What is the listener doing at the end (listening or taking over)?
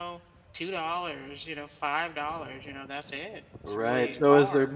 taking over